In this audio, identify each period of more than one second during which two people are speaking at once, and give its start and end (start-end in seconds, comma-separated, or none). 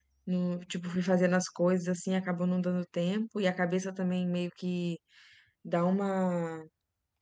none